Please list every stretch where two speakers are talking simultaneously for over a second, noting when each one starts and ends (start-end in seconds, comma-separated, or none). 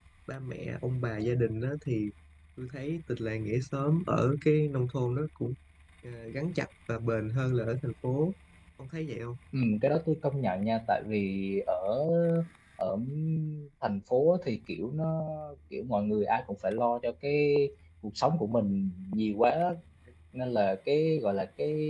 none